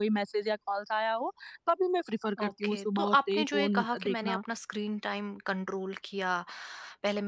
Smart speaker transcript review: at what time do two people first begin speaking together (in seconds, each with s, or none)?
2.4 s